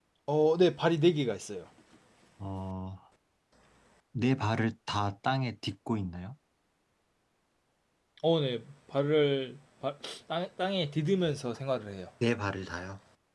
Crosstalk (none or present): none